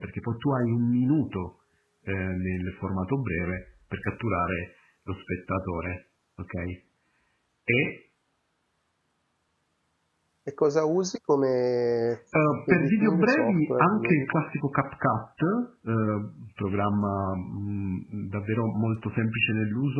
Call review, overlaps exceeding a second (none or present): present